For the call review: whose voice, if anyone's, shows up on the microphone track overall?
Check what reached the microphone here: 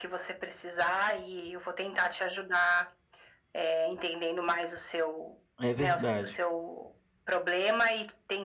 both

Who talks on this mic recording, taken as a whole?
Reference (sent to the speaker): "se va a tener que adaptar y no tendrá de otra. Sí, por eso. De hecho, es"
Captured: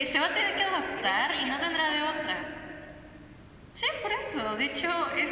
both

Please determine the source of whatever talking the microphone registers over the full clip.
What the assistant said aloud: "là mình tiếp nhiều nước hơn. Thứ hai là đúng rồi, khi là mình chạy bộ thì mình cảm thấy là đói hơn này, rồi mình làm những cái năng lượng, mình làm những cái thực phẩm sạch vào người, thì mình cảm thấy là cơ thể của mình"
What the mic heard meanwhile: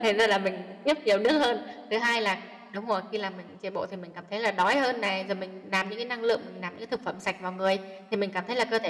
echo only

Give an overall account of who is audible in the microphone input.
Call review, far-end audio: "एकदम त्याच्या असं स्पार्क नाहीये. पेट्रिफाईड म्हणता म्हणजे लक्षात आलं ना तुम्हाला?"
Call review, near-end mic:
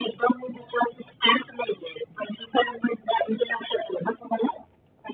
echo only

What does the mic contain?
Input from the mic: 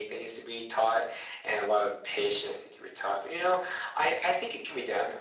echo only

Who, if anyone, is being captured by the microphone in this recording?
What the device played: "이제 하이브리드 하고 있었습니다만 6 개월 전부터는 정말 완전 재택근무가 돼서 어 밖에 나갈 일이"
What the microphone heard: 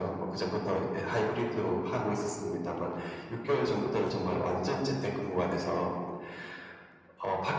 echo only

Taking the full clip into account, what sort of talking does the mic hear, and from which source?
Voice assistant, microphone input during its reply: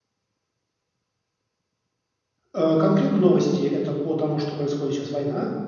user only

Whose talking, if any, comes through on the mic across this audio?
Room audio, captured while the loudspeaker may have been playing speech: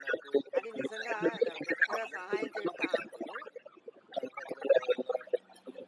both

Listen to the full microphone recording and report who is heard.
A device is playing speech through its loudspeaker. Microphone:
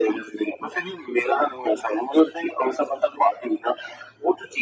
echo only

